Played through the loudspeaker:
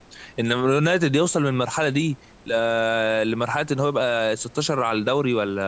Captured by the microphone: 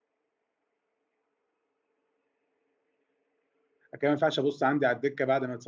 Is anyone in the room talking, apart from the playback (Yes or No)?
Yes